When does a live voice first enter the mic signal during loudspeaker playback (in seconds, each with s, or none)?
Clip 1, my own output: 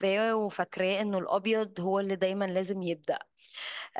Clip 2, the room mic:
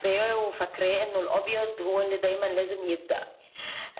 none